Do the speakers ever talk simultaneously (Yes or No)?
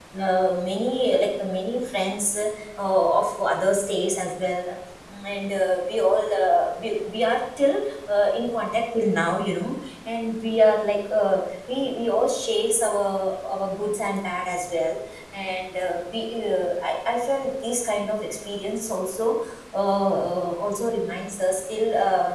No